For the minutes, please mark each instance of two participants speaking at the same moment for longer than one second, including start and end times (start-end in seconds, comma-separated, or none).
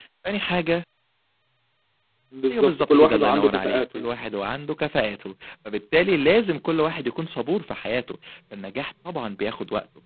2.5-4.1